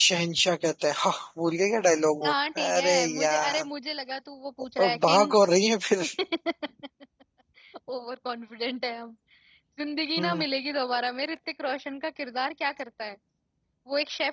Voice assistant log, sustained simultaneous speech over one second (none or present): present